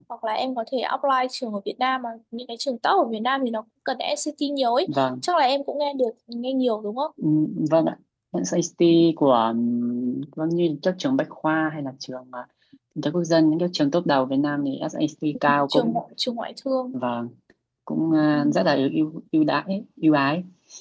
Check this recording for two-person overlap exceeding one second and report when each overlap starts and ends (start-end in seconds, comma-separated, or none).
none